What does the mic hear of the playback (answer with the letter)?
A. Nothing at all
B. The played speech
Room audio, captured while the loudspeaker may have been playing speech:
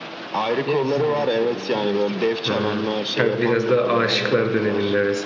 B